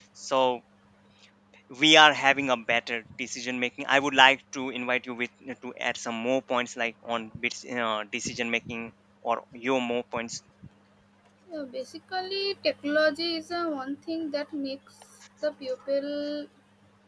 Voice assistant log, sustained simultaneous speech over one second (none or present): none